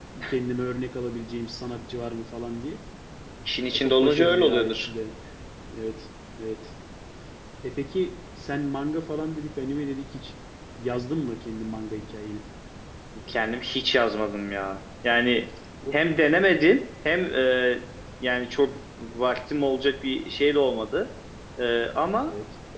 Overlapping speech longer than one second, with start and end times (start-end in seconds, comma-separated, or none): 3.7-4.9